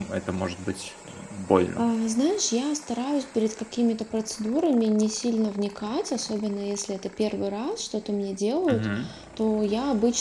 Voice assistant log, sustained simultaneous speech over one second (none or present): none